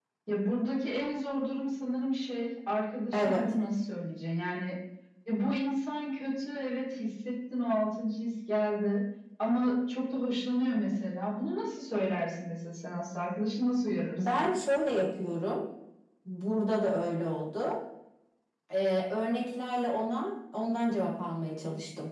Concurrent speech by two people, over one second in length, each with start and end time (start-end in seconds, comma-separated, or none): none